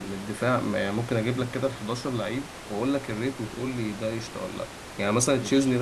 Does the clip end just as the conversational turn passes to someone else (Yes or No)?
No